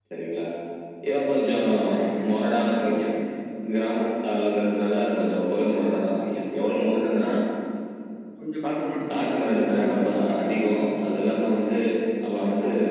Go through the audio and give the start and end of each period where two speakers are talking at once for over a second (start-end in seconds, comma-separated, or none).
9.2-10.6